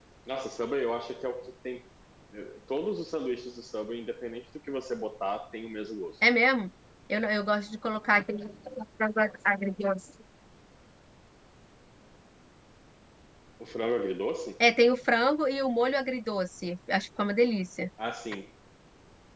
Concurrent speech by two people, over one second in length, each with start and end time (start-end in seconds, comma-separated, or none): none